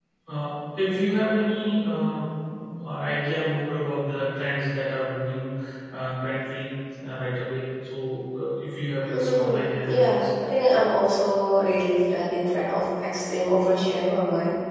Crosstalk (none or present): present